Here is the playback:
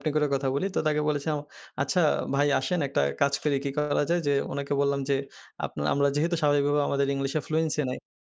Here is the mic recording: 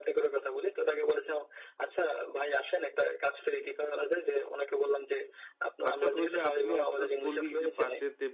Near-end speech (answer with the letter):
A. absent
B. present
B